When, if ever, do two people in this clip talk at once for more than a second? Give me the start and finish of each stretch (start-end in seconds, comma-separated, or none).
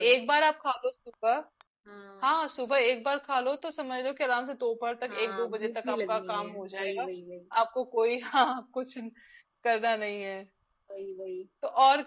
5.1-7.1